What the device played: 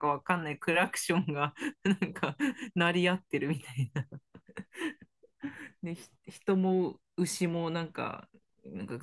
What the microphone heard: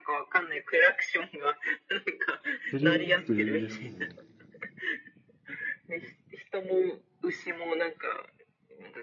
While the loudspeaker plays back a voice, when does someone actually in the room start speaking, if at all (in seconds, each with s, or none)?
2.7 s